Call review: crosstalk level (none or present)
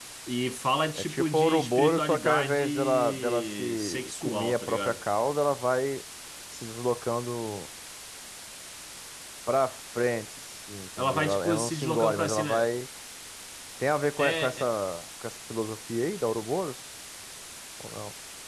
present